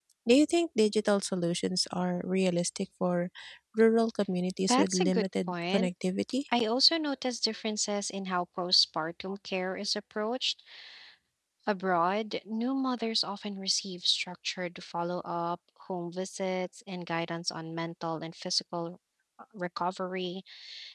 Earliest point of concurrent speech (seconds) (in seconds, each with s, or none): 4.7 s